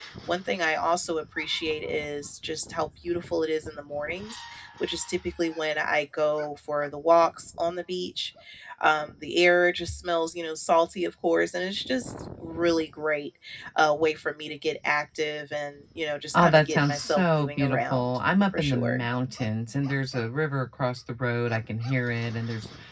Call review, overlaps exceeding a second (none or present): present